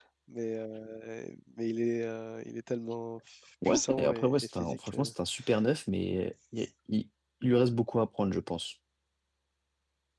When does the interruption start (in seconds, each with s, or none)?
3.6 s